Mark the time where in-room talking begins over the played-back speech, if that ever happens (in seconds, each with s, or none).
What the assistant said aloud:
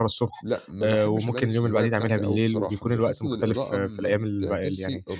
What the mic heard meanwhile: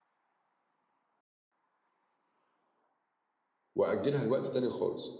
3.7 s